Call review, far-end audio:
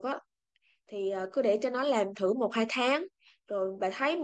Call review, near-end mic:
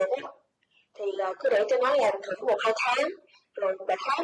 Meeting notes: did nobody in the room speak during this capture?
Yes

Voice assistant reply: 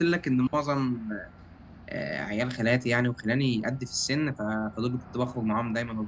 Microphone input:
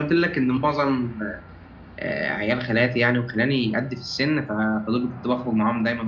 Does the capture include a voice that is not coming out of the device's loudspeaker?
No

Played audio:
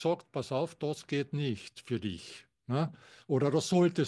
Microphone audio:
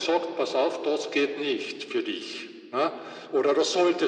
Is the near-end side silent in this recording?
Yes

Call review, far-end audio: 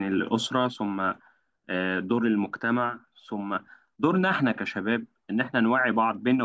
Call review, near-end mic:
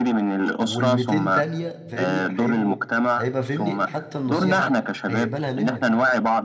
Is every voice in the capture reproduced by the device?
No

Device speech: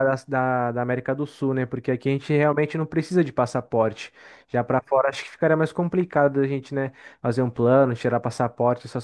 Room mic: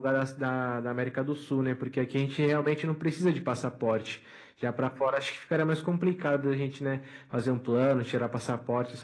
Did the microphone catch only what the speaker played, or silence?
Yes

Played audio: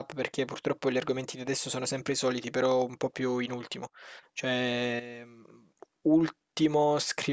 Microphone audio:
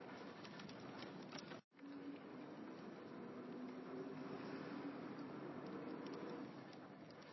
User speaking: No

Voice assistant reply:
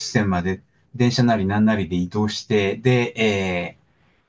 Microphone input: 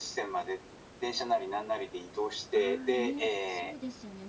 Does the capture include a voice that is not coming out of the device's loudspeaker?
Yes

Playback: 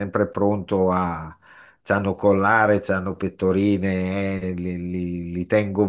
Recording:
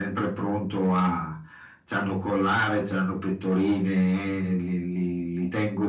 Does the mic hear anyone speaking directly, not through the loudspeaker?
No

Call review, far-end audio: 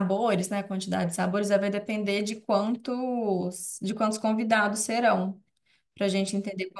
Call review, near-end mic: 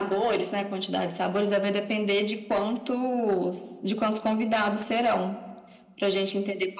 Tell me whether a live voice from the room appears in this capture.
No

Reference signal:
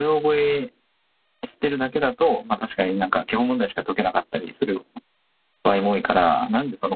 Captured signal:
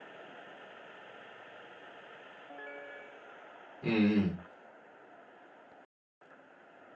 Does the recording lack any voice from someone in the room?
No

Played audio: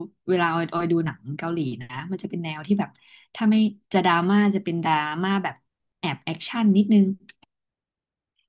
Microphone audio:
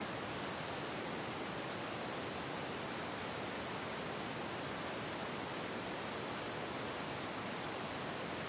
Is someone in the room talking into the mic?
No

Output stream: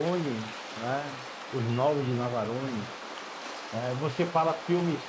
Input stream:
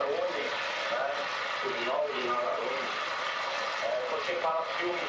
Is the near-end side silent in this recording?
Yes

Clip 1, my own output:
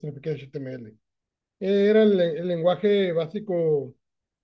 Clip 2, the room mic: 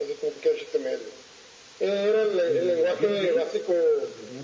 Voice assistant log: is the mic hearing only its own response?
No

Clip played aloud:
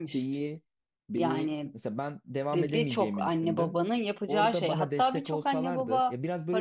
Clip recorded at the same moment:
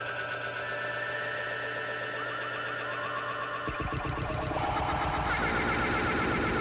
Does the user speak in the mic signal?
No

